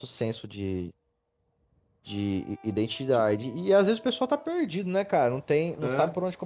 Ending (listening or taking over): listening